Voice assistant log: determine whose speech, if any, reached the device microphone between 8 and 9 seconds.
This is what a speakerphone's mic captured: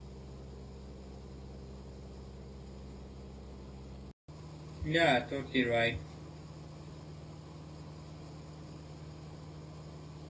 neither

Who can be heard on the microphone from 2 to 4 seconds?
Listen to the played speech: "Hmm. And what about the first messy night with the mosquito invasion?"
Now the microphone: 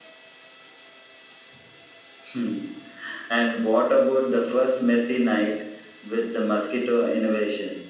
echo only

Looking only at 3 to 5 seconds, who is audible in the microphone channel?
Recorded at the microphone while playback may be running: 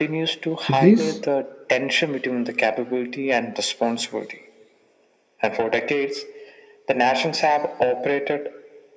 echo only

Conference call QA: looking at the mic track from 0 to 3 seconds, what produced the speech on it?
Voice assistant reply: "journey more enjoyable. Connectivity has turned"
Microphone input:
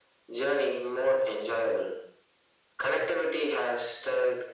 echo only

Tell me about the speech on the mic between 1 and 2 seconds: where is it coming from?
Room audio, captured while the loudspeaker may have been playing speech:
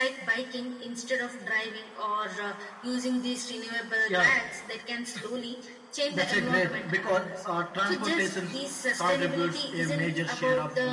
echo only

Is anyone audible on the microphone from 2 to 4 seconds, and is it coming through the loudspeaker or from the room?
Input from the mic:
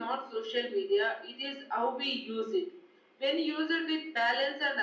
echo only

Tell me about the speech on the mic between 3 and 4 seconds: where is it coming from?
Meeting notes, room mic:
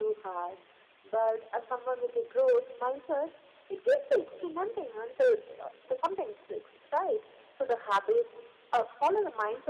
echo only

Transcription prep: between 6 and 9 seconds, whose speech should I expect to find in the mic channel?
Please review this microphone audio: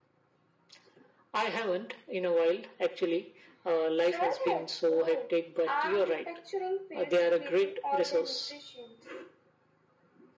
echo only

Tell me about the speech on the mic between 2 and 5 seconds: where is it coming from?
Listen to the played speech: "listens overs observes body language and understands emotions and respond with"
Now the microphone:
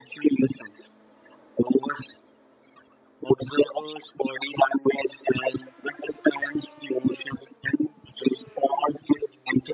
echo only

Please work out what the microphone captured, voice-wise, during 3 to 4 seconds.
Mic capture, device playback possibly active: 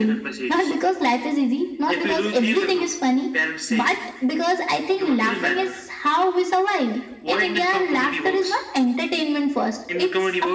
echo only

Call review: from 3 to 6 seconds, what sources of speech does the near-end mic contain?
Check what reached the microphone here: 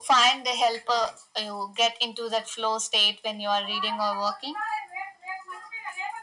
echo only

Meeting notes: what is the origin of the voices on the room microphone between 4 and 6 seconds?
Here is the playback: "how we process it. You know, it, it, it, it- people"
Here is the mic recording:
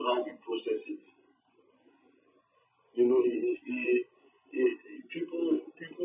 echo only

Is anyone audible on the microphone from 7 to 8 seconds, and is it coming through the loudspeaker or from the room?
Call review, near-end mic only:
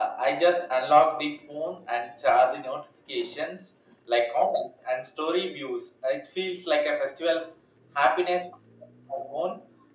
echo only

